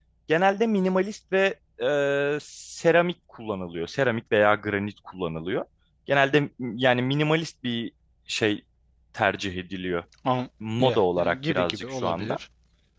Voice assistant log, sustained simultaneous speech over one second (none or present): present